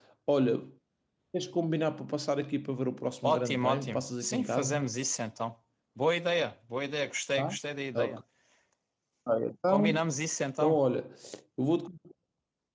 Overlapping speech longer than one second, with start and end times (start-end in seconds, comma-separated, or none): 3.2-4.8